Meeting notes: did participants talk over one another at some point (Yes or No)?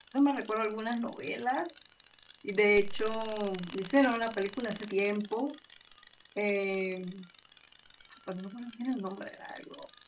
No